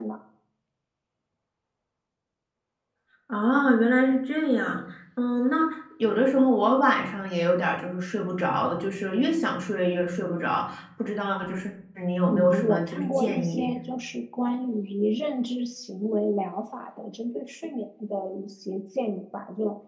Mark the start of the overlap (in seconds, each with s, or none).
12.3 s